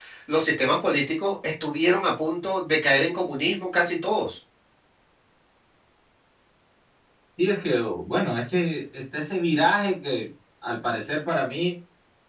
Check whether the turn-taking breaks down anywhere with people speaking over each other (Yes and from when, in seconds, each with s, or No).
No